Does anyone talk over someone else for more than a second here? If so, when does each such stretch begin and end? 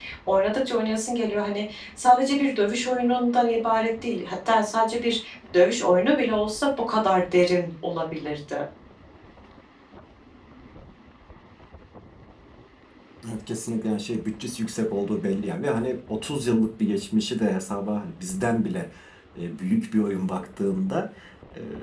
none

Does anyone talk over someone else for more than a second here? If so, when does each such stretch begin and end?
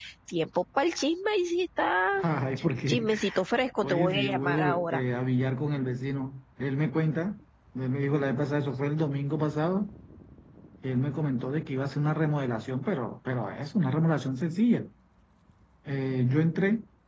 3.8-5.0

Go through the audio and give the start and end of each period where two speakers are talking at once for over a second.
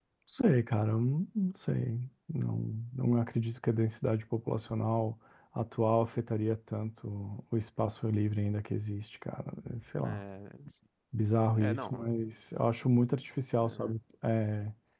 none

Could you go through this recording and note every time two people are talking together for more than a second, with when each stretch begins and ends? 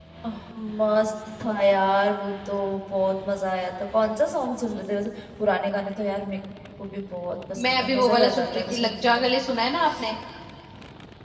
7.6-9.2

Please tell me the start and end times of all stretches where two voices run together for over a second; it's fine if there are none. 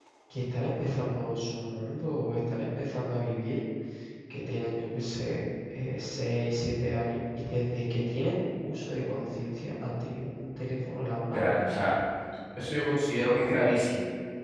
none

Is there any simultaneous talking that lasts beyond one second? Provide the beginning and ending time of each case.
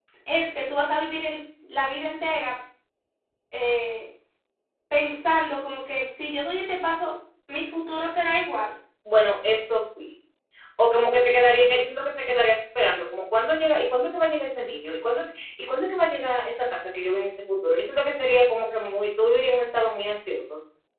none

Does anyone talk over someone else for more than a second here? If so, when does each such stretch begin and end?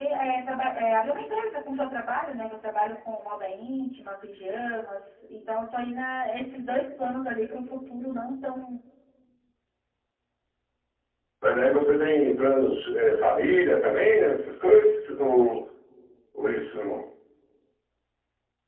none

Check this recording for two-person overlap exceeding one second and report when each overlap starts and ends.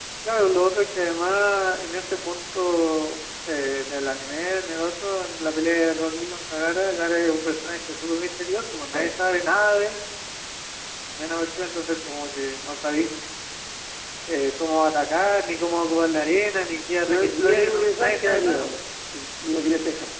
17.1-18.7

